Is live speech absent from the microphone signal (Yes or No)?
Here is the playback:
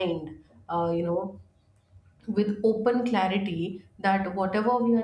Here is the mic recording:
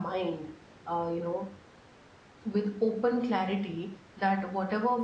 Yes